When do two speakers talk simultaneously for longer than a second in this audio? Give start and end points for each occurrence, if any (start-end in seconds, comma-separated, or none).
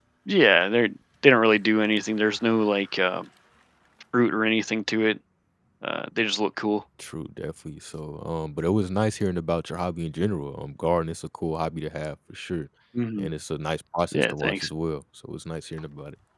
none